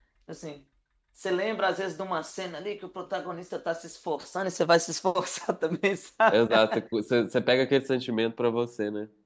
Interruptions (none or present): none